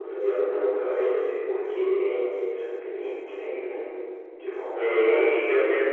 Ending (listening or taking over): taking over